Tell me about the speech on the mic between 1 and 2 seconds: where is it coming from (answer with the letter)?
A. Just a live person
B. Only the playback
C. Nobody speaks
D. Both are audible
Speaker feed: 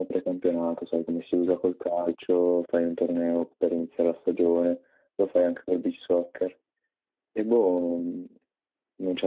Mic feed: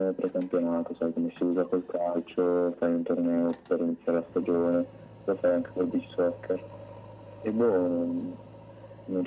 B